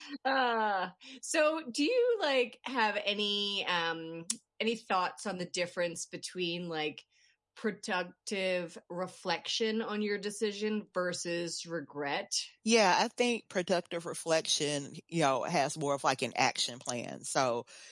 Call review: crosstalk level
none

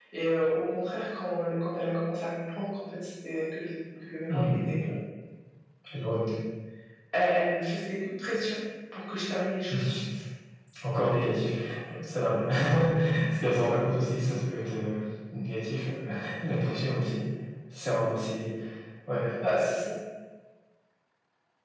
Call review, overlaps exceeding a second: none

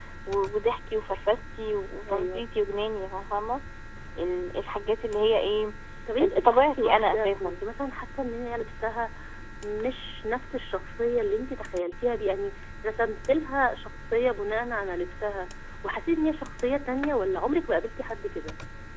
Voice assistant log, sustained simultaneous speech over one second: present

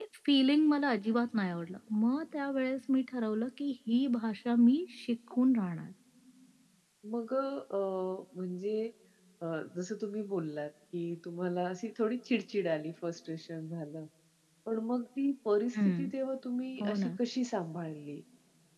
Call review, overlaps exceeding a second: none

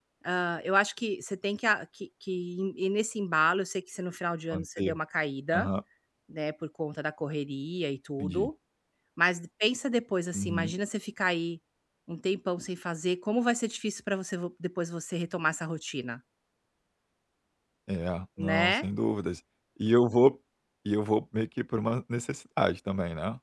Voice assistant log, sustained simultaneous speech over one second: none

